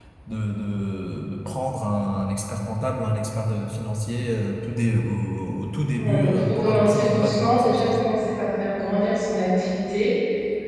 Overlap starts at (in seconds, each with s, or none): 5.9 s